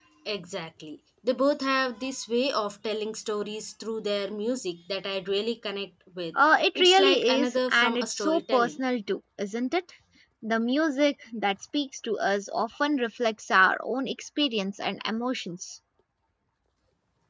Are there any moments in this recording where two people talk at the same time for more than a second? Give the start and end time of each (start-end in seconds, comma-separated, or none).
6.8-8.8